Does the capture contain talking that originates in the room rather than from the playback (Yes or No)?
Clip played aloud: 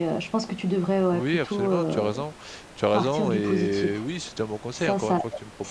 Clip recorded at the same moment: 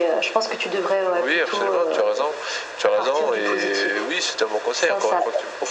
No